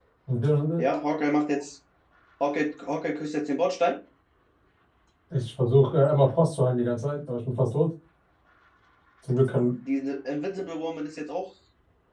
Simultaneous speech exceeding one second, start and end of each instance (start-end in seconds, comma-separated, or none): none